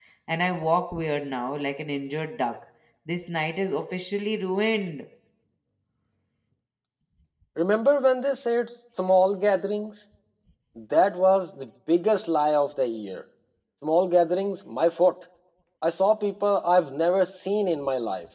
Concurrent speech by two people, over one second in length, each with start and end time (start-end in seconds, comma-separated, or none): none